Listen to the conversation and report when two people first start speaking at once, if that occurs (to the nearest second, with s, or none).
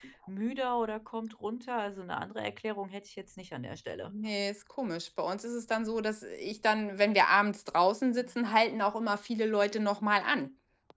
none